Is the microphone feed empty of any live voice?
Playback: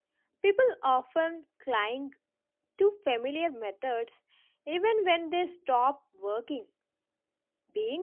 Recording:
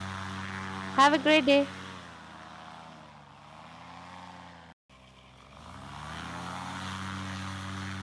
No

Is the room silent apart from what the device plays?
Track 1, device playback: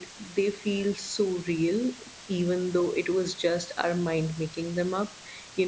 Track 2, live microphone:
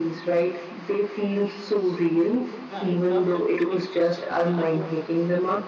No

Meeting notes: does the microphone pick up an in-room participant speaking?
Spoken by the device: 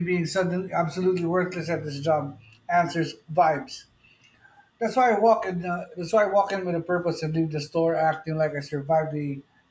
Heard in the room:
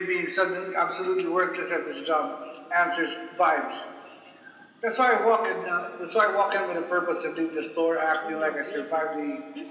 Yes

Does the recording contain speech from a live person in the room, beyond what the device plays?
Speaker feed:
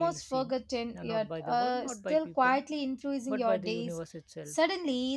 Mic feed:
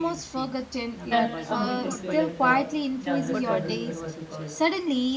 Yes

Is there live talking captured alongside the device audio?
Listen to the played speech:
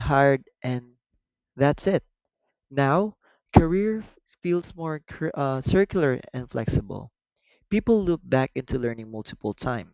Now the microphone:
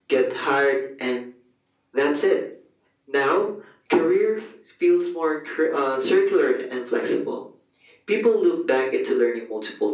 No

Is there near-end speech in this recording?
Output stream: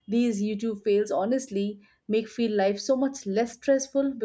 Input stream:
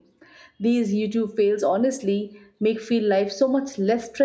No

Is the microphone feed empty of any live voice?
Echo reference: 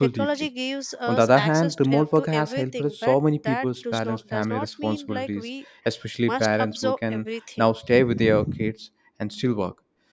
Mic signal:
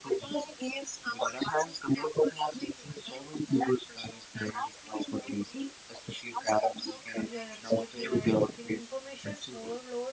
No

